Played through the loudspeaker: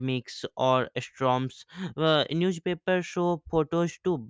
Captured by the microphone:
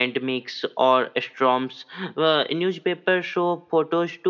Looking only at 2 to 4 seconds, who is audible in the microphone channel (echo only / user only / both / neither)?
echo only